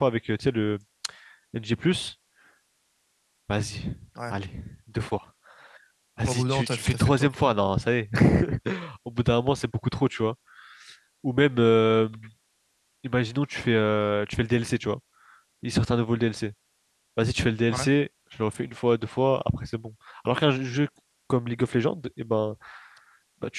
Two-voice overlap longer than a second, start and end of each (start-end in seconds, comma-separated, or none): 6.2-7.5